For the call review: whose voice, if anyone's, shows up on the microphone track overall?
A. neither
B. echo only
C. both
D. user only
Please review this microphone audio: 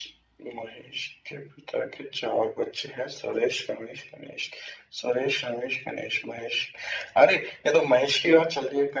B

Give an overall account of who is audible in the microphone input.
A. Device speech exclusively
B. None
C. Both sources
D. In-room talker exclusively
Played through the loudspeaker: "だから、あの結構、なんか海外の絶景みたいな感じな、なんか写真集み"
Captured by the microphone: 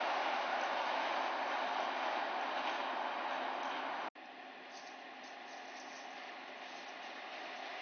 B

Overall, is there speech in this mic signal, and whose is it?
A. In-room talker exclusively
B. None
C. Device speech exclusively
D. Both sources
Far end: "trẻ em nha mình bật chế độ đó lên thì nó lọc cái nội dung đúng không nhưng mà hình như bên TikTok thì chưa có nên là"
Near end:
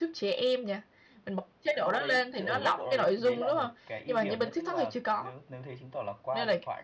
D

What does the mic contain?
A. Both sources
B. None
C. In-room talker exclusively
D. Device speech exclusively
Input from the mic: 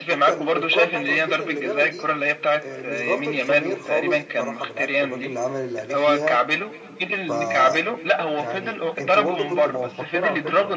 A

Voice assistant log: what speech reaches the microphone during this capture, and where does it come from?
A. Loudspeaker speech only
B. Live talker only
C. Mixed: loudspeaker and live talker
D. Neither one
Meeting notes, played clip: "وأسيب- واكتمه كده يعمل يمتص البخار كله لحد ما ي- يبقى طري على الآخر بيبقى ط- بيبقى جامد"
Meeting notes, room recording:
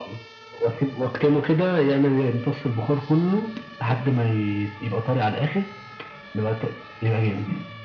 A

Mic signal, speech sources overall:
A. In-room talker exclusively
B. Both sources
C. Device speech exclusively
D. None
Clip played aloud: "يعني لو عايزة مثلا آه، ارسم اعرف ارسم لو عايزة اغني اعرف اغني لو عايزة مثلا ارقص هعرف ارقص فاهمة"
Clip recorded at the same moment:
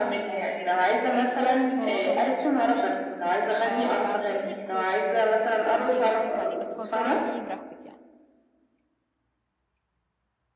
B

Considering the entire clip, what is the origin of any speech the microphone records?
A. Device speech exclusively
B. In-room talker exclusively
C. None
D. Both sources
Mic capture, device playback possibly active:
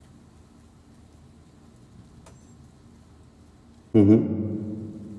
B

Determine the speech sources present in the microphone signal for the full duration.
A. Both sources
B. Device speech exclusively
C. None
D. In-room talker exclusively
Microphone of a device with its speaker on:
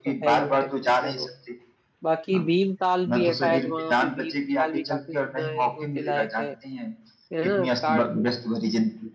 A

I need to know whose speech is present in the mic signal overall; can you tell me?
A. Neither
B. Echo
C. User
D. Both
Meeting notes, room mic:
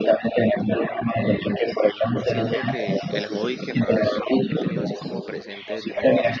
D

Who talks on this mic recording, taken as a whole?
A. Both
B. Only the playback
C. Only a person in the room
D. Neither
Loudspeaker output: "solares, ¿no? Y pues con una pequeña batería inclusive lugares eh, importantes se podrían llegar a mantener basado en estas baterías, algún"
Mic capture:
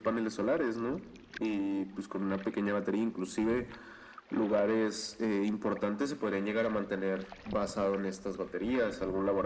B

